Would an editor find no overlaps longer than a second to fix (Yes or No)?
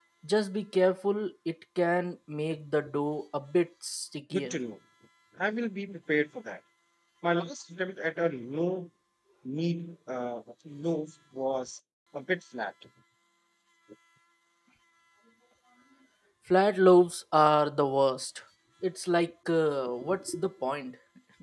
Yes